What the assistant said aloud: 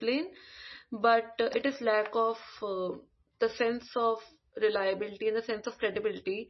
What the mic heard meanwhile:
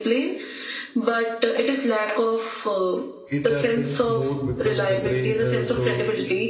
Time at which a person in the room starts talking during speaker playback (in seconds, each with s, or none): 3.4 s